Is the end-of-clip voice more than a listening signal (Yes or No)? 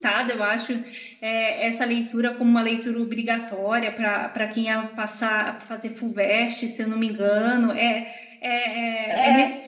No